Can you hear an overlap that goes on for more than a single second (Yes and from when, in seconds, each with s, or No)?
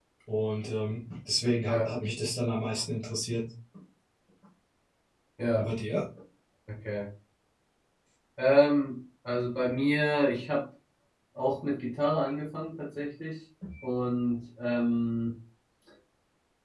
No